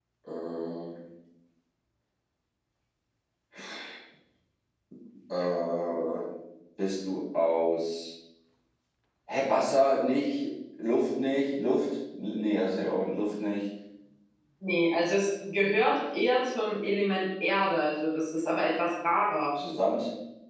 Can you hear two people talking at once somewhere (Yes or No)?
No